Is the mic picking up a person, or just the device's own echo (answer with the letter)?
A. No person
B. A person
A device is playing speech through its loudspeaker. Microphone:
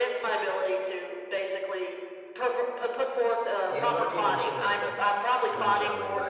B